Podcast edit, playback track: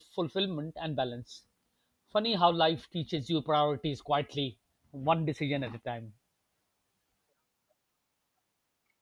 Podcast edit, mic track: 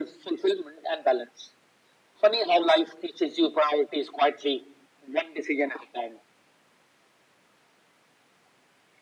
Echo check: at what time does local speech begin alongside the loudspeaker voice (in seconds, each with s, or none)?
none